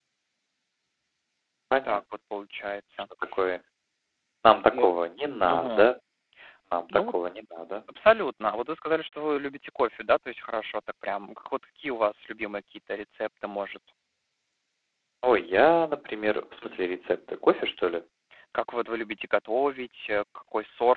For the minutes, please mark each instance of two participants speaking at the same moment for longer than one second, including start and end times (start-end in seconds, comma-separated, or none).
none